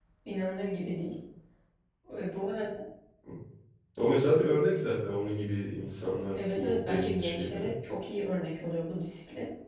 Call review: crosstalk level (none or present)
present